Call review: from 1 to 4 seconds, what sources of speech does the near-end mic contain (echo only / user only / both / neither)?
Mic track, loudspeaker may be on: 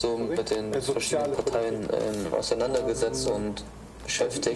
echo only